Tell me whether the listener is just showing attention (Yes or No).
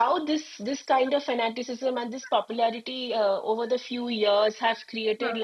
Yes